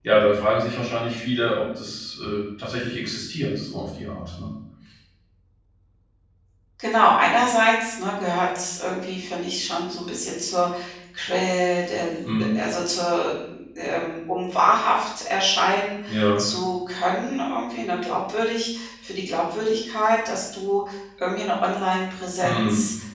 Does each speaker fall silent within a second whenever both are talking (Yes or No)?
Yes